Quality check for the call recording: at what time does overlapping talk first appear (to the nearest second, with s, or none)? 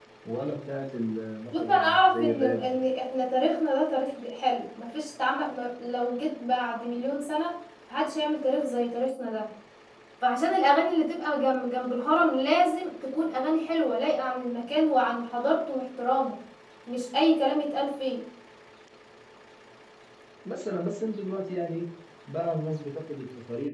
2 s